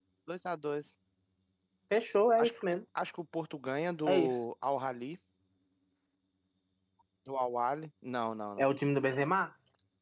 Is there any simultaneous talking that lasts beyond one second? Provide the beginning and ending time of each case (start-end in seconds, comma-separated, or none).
none